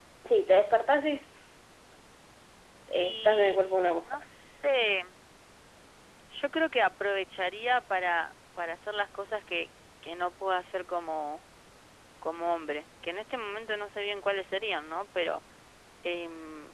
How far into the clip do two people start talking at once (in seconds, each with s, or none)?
3.0 s